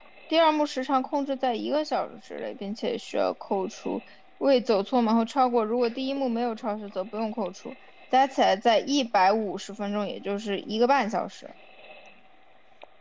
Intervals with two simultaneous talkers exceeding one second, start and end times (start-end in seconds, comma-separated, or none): none